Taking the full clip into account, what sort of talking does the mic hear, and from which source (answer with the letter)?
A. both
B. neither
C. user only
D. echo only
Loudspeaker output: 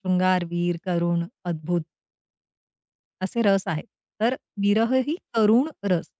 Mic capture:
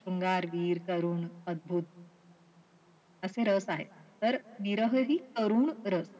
D